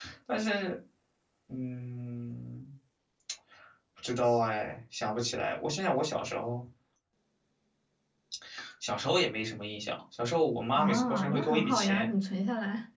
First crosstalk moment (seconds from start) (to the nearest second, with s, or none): 11 s